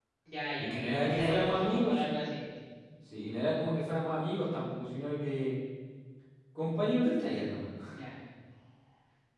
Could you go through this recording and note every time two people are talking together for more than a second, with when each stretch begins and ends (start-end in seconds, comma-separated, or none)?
0.6-2.2